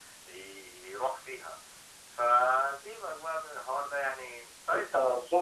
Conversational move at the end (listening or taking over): taking over